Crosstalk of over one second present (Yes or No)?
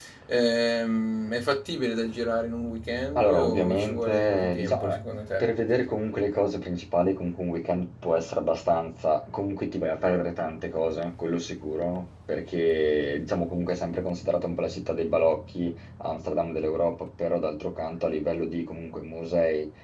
Yes